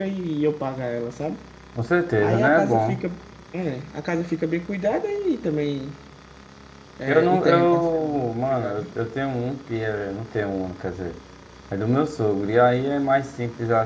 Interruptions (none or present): present